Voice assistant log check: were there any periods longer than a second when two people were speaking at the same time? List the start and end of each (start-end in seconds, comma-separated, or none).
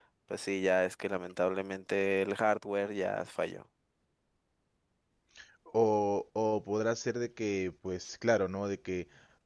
none